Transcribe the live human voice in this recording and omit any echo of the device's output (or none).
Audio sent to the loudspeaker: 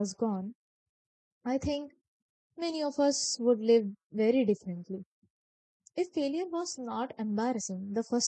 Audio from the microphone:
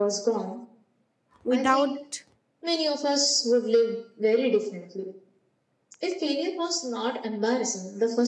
without